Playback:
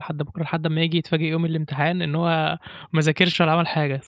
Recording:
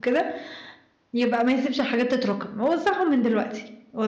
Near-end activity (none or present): present